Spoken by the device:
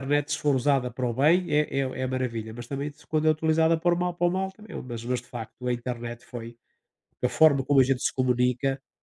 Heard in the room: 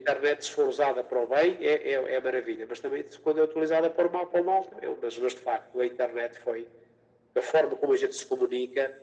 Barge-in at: none

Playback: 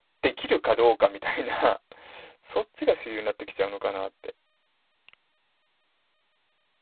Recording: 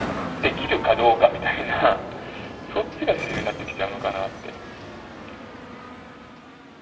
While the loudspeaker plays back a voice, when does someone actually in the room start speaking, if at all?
none

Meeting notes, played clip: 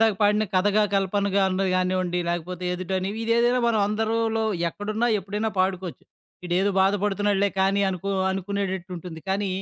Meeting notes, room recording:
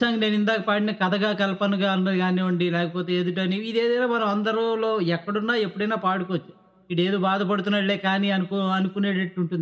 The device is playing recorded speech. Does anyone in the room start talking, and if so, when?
none

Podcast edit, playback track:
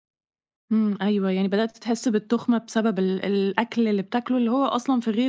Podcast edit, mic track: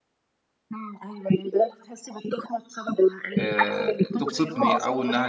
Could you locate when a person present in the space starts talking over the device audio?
3 s

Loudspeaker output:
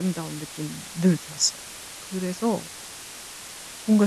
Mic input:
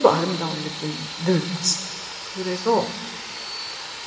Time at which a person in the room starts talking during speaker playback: none

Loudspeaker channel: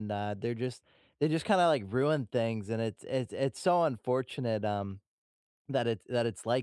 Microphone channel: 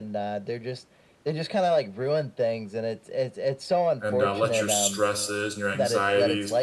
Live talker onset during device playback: 4 s

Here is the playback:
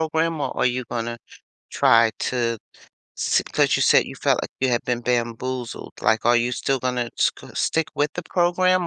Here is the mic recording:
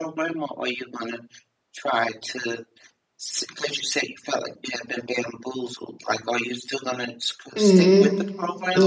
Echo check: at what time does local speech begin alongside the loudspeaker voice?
8 s

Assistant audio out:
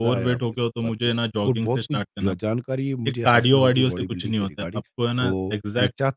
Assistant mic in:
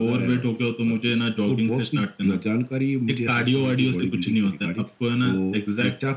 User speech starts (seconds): none

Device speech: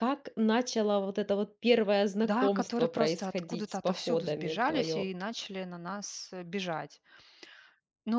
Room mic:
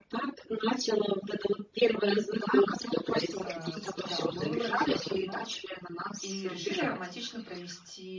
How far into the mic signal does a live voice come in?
3 s

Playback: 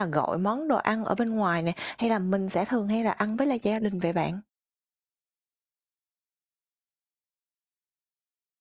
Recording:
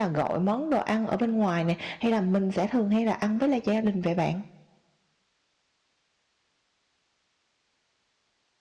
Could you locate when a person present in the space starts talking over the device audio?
none

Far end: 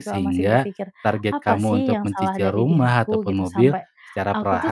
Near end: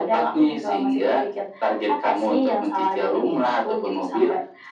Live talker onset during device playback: none

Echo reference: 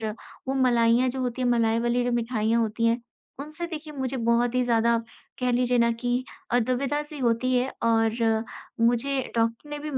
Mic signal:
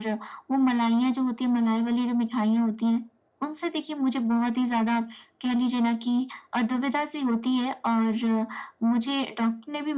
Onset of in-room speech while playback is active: none

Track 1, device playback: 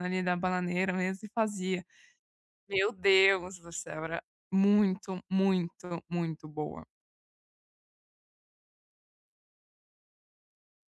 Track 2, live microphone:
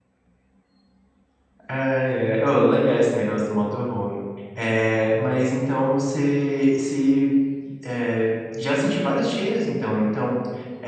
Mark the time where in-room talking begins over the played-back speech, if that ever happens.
2 s

